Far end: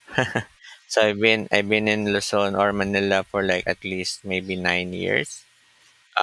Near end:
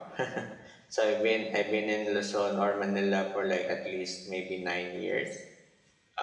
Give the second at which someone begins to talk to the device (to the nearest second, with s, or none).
none